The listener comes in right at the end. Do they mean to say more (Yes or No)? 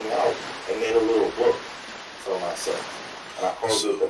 Yes